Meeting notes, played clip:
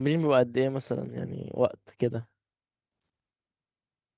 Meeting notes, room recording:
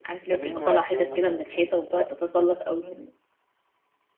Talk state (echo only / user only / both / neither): both